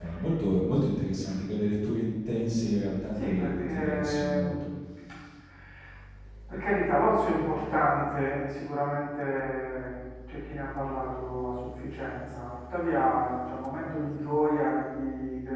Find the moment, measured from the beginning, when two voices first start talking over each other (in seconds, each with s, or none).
3.2 s